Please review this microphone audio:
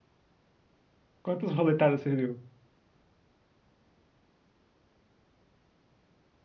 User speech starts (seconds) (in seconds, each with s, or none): 1.2 s